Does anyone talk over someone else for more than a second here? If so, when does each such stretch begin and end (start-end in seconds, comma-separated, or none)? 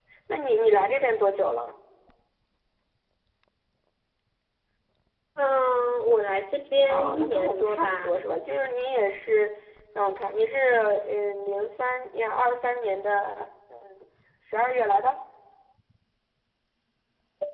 6.9-8.1